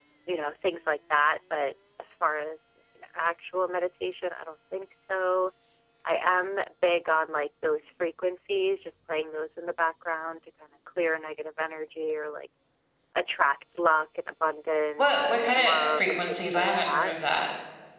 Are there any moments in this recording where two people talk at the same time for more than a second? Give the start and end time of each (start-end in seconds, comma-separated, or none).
15.0-17.1